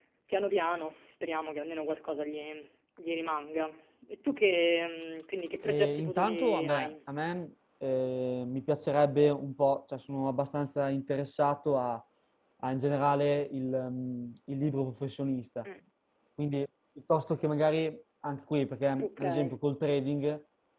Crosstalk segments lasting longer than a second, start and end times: 5.6-6.9

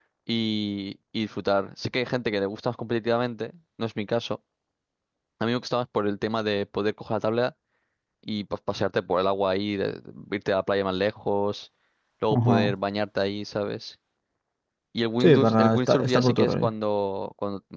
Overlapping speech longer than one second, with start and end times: 15.2-16.7

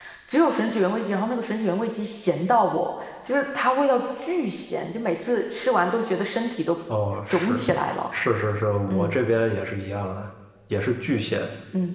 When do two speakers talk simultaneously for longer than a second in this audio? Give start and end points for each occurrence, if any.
none

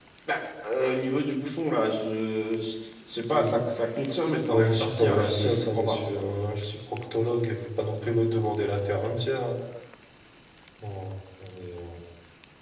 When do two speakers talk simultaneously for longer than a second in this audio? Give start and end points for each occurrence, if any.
4.5-6.0

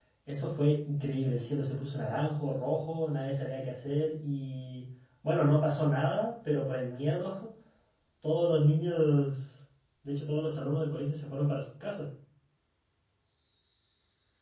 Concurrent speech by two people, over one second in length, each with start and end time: none

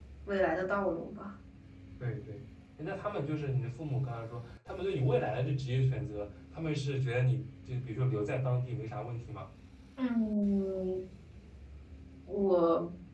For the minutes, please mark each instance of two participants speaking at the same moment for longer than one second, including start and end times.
none

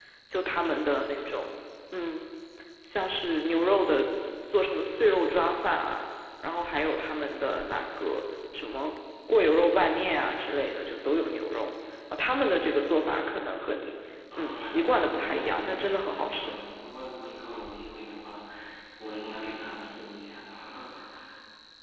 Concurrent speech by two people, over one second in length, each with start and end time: 14.3-16.6

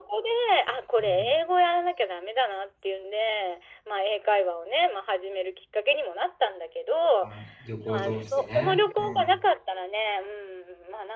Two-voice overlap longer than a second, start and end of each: 7.9-9.3

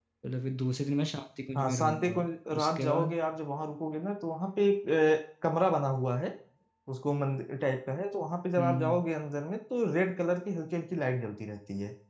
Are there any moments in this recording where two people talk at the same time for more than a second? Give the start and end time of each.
1.6-3.2

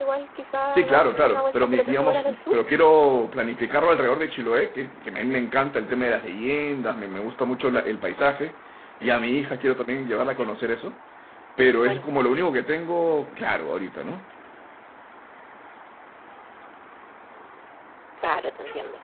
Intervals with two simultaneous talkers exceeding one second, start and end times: 0.7-2.6

